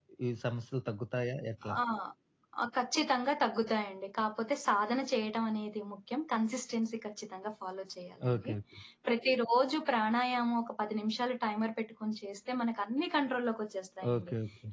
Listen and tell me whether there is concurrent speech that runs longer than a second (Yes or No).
No